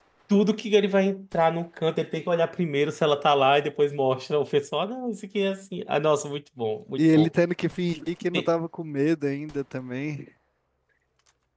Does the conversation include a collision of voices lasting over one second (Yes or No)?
No